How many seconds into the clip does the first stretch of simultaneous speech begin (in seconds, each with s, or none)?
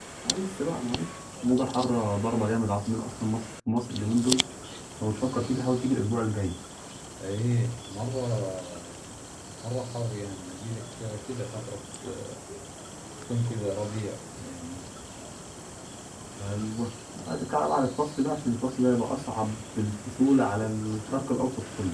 none